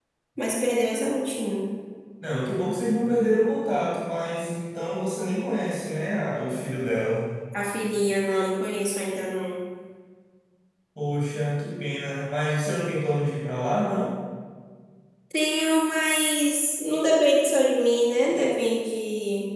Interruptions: none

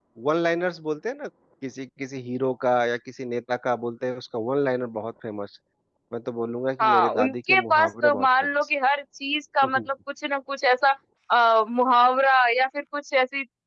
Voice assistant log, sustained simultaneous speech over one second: present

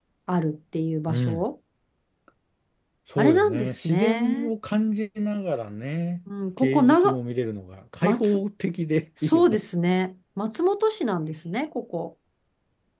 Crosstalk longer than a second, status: present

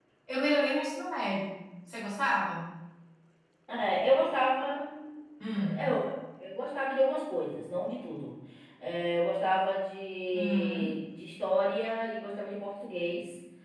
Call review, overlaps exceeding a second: none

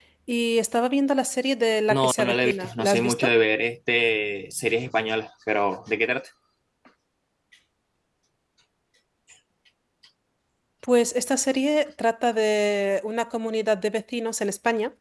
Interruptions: present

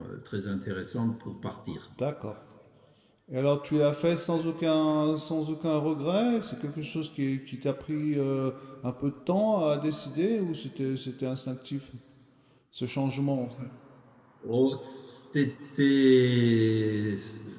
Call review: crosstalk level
none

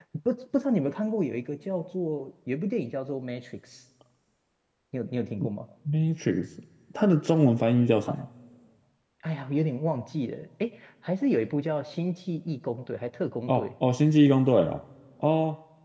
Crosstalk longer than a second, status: none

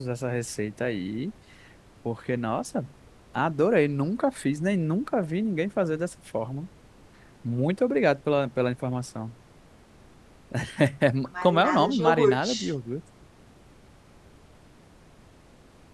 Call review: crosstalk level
present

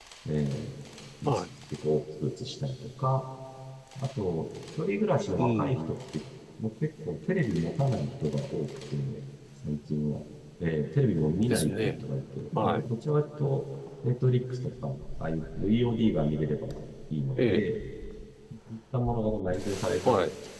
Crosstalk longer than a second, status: none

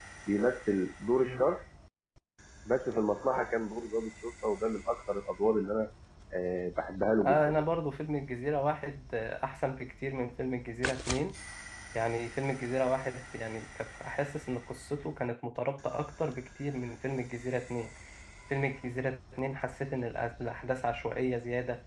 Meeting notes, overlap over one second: none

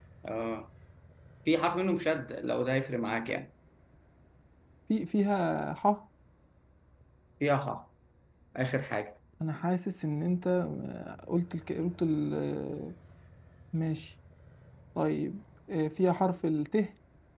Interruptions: none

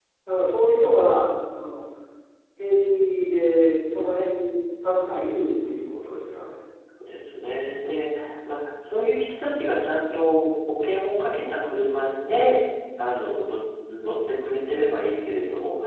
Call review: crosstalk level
none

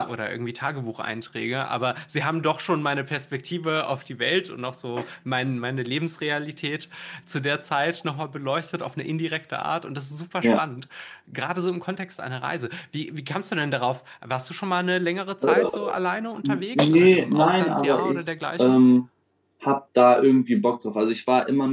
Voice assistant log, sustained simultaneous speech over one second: present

